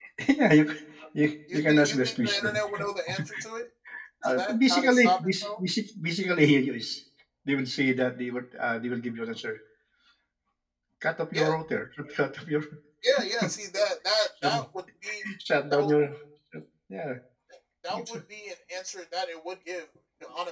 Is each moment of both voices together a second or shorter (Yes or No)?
No